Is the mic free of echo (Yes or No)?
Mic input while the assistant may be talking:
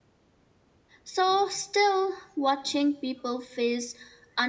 Yes